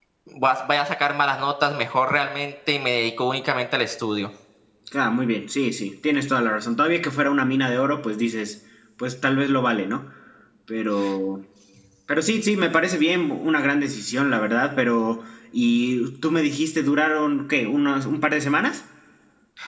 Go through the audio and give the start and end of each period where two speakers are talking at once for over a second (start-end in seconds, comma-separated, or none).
none